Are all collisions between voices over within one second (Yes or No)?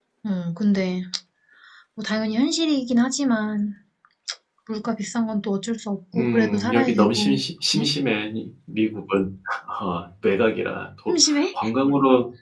No